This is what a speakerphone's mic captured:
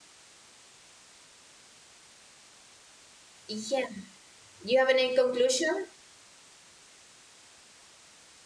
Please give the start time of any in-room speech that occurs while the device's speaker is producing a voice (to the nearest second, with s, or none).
3 s